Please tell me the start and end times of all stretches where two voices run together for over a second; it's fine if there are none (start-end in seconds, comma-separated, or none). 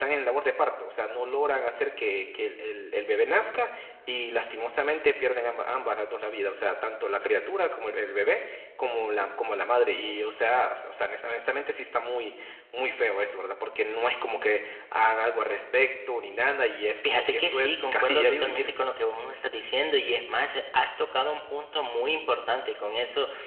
17.0-18.7